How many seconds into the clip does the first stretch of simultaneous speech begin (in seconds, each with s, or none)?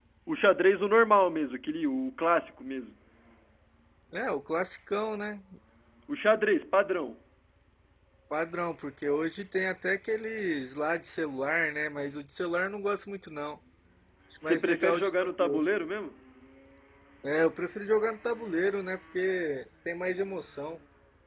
14.4 s